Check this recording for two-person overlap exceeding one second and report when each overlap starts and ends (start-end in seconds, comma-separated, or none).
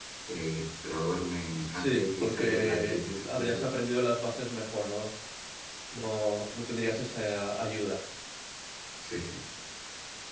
1.7-3.6